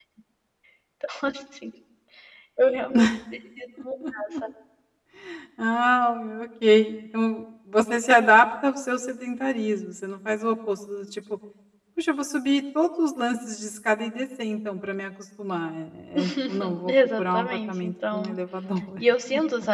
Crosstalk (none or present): present